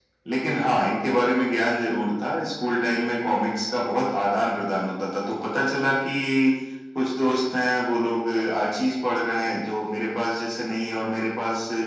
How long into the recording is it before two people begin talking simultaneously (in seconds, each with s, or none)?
none